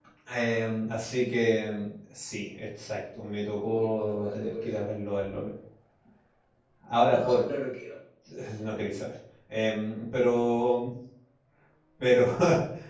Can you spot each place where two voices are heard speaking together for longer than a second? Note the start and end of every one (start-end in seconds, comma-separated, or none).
3.6-4.9